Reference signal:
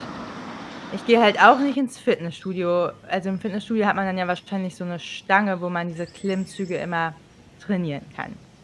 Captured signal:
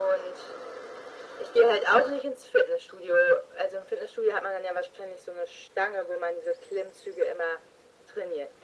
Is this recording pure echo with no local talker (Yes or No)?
Yes